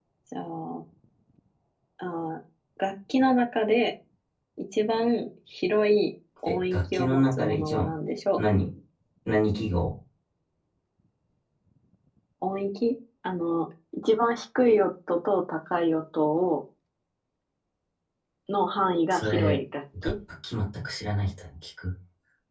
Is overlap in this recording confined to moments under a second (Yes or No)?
No